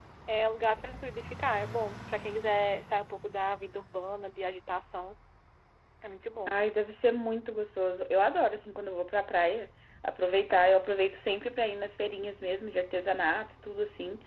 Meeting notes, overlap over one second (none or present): none